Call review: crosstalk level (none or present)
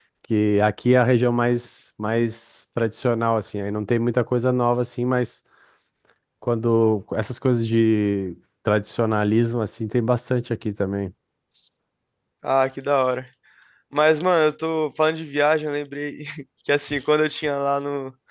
none